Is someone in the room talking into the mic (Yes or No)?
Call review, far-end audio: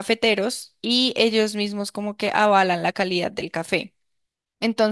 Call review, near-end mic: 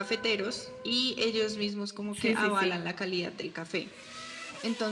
Yes